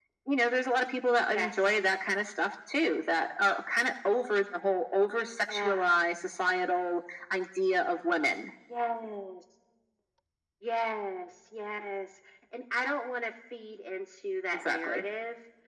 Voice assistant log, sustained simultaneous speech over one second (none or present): none